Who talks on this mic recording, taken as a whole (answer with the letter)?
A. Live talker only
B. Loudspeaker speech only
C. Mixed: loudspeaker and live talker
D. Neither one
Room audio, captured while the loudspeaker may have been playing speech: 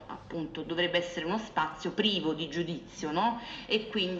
B